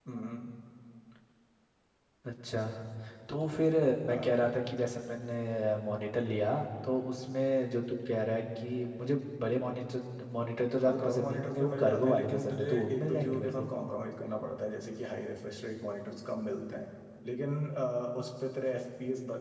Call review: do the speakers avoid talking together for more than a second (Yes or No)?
No